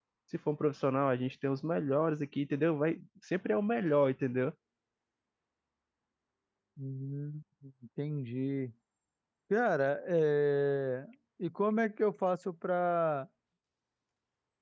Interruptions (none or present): none